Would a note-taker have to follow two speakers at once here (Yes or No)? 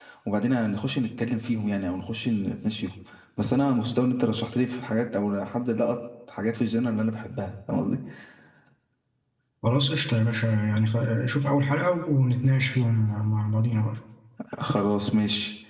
No